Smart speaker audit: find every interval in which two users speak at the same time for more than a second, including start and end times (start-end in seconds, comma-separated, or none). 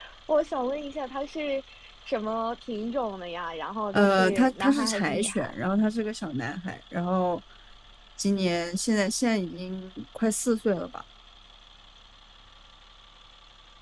3.9-5.6